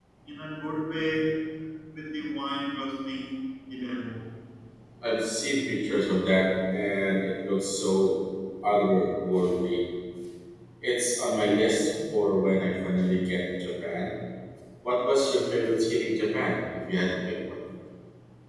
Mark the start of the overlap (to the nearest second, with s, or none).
none